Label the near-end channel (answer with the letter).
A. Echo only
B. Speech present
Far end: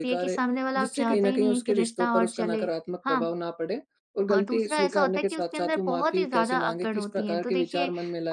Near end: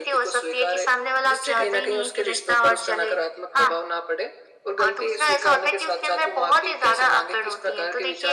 A